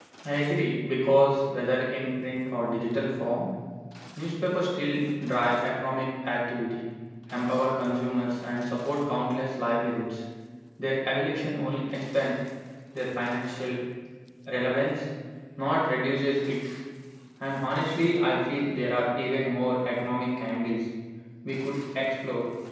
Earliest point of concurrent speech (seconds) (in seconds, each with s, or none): none